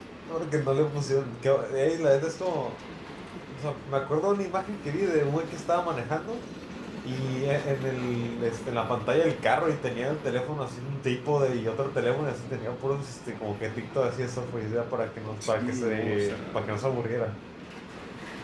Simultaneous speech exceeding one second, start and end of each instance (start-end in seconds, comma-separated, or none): 15.4-17.0